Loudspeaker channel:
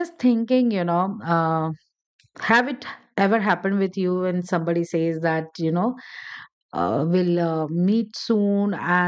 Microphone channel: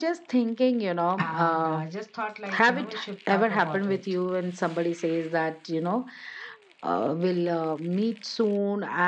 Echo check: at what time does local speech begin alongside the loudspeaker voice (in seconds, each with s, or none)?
1.2 s